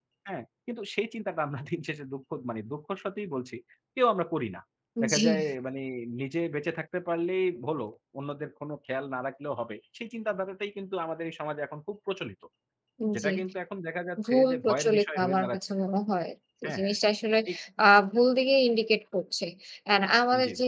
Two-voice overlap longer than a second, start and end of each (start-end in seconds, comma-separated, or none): 14.2-15.6